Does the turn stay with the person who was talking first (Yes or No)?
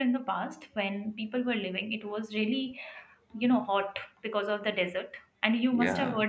Yes